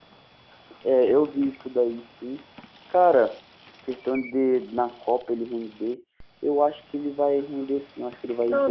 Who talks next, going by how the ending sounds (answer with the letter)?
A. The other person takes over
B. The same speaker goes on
A